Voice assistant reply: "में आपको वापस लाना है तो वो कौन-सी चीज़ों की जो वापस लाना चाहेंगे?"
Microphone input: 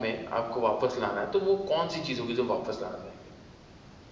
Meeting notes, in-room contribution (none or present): none